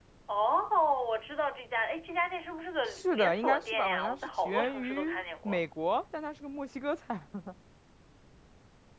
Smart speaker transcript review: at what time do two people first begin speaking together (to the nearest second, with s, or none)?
3 s